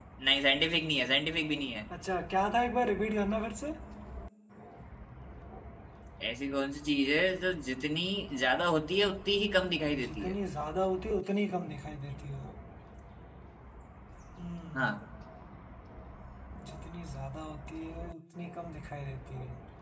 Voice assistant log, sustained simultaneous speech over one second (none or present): none